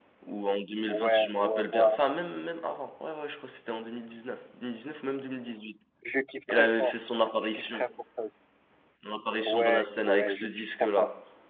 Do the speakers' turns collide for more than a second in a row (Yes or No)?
Yes